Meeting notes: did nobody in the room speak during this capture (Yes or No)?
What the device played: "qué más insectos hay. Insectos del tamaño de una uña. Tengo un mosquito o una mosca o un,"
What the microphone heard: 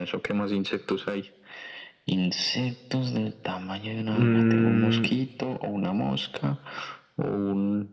No